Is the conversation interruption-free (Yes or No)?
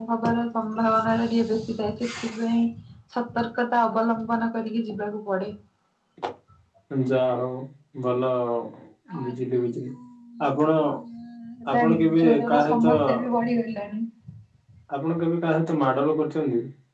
No